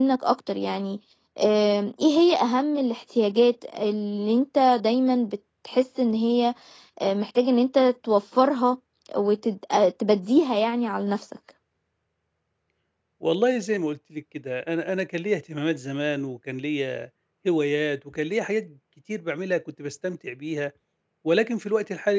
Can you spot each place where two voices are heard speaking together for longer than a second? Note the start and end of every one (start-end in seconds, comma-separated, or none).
none